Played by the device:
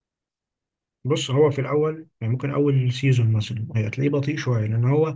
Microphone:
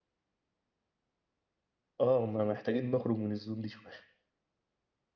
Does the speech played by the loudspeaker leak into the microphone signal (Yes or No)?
No